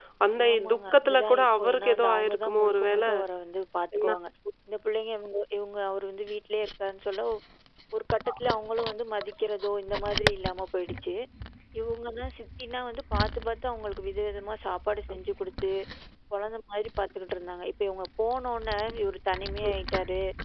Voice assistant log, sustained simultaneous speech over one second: present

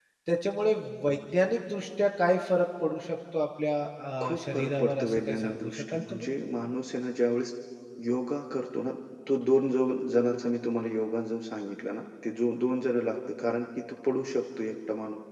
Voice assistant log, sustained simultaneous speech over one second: present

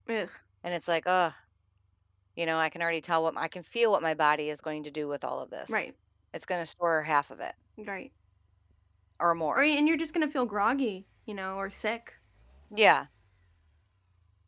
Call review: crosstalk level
none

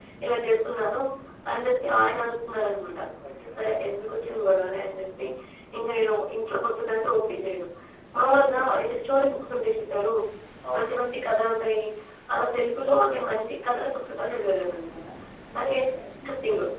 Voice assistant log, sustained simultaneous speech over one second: none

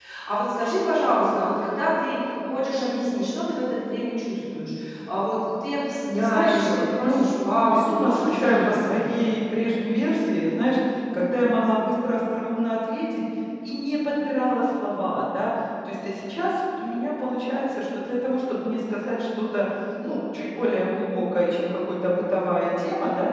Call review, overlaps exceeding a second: present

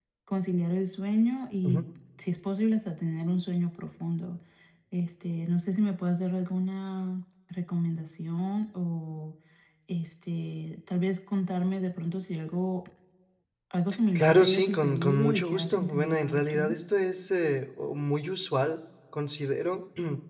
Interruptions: present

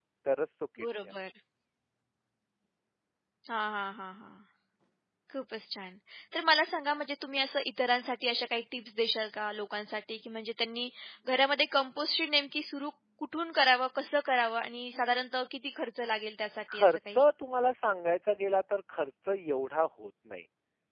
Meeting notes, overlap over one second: none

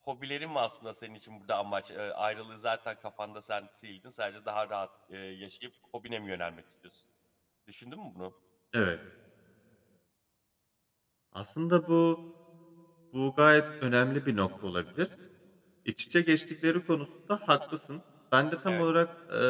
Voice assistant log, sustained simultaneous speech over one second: none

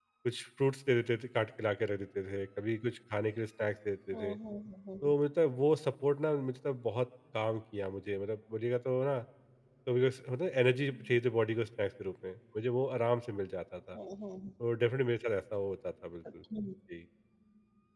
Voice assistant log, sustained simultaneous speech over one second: none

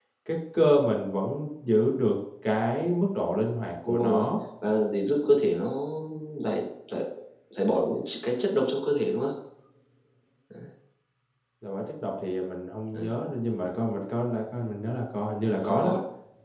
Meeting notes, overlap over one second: none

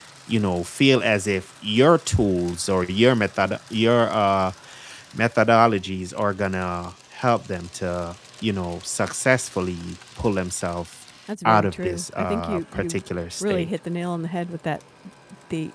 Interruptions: present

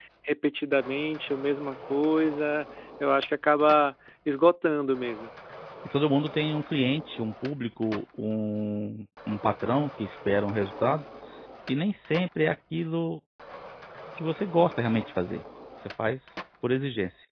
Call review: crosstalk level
none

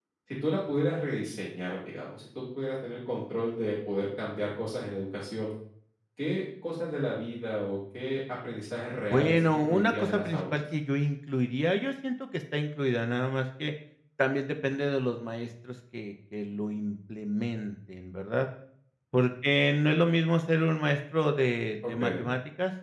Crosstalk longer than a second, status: present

